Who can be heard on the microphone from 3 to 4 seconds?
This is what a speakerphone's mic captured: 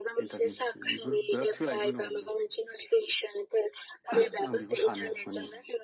echo only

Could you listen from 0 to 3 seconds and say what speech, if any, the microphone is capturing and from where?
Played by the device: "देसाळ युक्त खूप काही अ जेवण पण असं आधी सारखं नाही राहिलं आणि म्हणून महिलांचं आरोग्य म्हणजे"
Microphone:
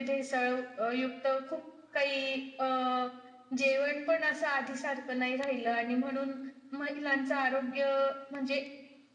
echo only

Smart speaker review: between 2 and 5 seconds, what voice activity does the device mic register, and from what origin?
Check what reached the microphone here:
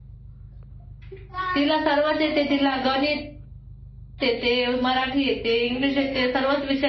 echo only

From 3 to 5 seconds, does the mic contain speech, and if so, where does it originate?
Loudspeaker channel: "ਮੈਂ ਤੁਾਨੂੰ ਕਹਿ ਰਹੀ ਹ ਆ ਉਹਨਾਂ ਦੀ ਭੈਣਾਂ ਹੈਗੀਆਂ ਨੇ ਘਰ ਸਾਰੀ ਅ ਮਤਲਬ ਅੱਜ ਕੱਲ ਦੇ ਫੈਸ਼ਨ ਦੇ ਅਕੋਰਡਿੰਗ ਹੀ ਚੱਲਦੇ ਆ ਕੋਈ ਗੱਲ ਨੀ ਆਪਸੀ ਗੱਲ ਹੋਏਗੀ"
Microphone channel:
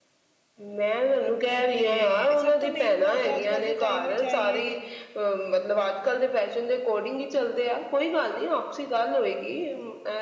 both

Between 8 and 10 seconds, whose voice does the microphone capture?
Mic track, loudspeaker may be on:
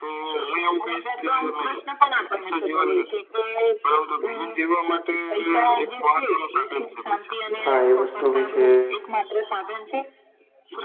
both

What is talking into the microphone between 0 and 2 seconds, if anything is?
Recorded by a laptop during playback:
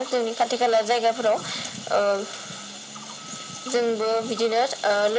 echo only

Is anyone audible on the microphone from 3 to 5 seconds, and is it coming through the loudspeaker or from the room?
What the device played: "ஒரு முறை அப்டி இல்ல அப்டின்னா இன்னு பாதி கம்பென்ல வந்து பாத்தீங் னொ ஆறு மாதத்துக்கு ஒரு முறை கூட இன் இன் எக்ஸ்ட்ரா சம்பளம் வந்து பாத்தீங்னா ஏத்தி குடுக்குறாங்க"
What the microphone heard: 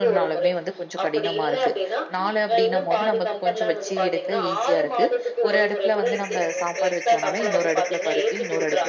both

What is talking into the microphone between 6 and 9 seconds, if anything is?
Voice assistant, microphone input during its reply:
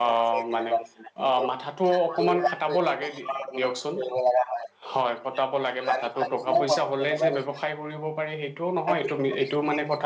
both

